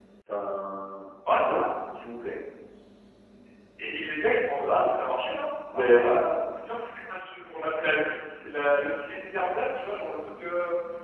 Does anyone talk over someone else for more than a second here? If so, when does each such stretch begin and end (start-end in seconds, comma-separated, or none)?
none